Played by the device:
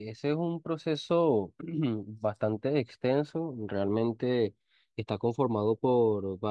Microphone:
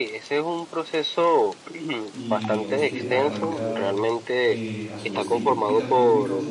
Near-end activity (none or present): present